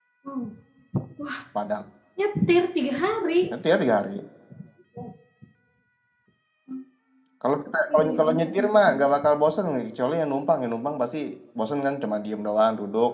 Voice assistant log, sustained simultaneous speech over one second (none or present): present